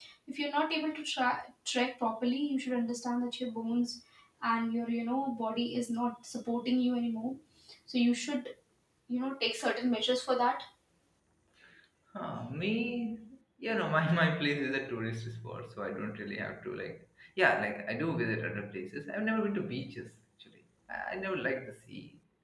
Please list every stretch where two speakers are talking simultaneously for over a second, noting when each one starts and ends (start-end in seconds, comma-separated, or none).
none